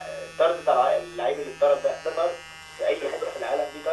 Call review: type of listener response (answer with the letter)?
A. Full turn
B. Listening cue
A